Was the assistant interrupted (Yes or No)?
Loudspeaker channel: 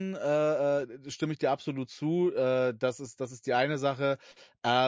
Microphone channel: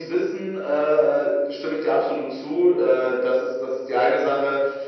No